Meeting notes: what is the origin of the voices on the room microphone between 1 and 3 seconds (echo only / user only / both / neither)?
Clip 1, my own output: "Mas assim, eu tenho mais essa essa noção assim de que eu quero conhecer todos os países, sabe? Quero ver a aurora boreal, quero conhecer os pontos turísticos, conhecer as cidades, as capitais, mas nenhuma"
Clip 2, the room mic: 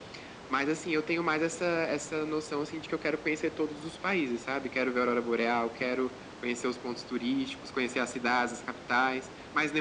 echo only